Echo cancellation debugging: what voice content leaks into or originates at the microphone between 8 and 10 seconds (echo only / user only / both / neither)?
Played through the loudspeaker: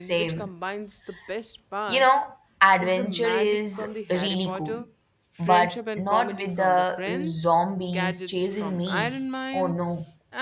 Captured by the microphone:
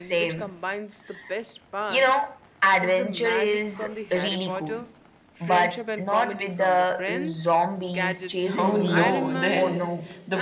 both